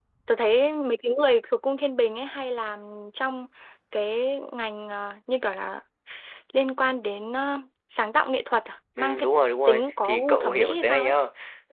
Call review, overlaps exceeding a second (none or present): present